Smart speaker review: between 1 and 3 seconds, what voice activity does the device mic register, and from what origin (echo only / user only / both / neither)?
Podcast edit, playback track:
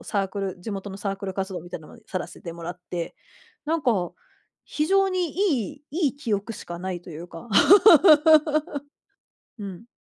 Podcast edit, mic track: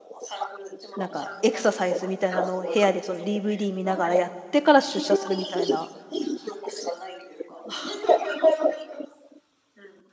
both